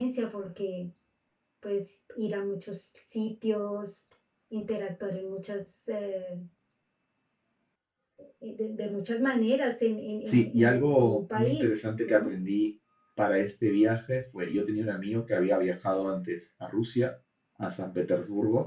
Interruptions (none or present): present